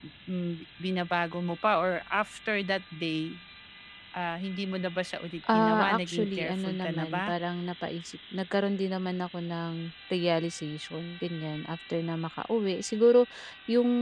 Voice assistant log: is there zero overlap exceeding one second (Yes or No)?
No